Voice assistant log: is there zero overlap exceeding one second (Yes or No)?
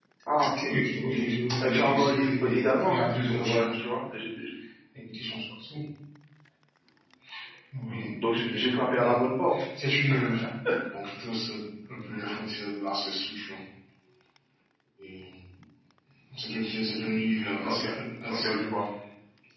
No